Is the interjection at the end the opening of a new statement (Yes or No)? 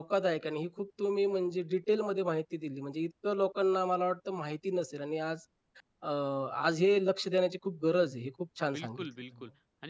Yes